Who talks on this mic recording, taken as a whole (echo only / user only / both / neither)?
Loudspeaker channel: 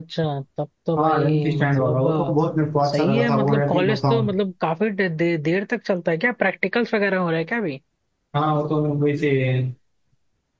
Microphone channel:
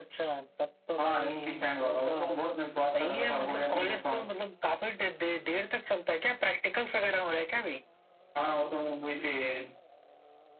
echo only